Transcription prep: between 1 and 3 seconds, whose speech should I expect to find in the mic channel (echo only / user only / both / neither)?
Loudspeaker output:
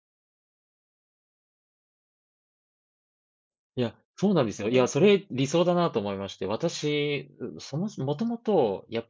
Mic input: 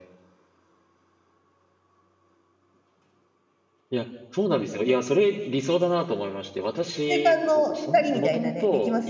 neither